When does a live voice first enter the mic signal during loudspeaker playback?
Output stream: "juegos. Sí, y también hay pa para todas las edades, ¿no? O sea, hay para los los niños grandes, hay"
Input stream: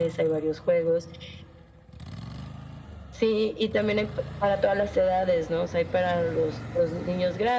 none

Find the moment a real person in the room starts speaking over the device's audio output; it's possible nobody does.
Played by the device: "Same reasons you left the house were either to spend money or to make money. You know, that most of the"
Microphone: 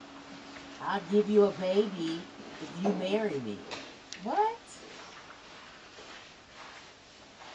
0.8 s

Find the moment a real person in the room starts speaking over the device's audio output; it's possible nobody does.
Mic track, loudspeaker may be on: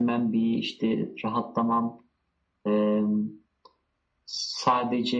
none

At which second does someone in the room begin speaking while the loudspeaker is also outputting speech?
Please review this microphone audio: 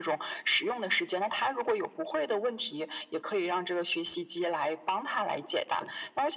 none

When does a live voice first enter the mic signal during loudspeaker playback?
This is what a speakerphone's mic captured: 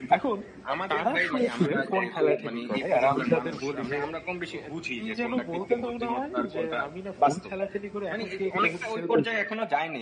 none

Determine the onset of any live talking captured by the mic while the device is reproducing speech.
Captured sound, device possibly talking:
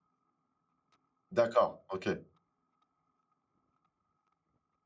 1.3 s

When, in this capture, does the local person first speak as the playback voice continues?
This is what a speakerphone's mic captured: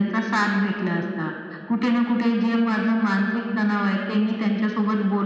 none

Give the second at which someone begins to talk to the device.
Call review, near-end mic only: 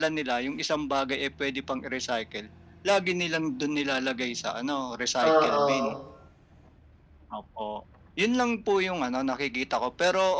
5.3 s

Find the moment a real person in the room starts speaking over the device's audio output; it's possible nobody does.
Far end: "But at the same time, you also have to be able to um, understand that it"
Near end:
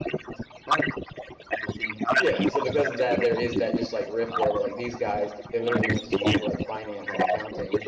2.2 s

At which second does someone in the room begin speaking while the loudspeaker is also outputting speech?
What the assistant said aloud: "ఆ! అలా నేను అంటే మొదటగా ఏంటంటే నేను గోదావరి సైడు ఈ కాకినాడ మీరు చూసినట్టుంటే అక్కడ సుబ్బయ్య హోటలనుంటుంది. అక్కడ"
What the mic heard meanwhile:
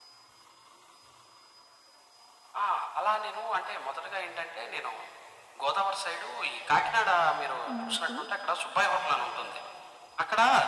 7.7 s

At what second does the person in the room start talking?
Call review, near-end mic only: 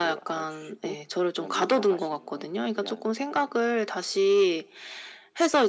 none

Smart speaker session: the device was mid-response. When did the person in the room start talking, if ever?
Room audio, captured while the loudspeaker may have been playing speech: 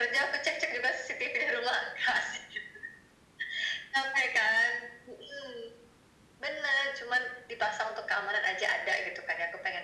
none

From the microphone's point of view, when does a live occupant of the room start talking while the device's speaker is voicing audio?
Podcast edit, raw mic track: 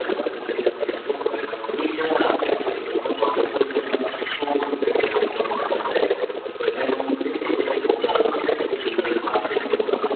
7.2 s

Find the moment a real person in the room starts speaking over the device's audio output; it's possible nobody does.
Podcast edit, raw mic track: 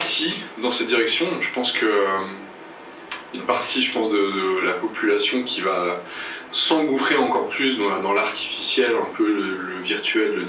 none

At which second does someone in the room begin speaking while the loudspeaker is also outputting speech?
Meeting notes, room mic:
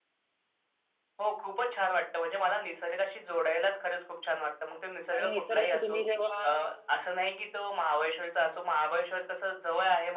5.2 s

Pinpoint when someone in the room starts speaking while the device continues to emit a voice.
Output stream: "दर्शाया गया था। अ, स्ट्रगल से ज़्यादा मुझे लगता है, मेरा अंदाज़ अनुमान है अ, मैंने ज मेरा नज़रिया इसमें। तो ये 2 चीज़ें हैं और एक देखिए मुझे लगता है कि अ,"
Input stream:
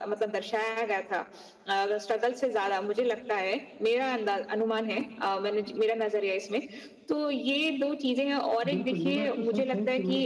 8.7 s

